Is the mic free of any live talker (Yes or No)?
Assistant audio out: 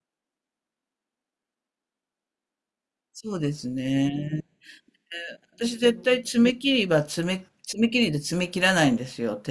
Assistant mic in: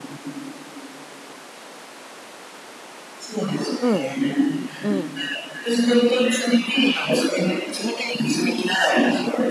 No